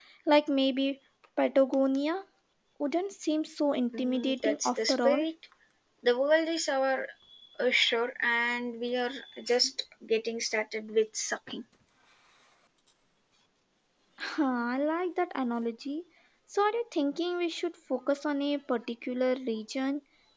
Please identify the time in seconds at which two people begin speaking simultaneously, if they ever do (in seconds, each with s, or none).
3.9 s